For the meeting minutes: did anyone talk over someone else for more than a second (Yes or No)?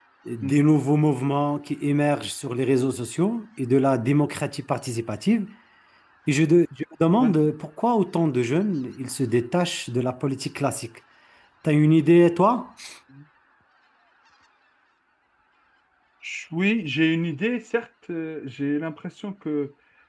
No